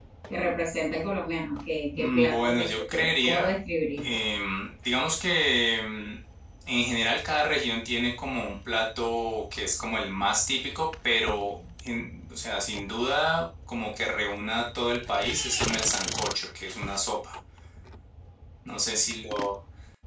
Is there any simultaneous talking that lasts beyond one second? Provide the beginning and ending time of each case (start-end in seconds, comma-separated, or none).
2.0-3.5